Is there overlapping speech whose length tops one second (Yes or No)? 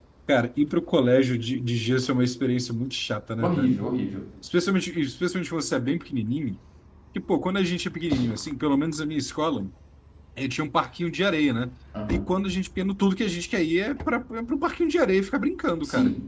No